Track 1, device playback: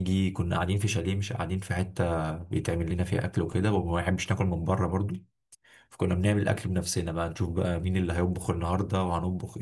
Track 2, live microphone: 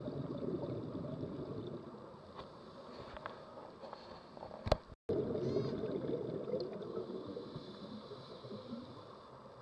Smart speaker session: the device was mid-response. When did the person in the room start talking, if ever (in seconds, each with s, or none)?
none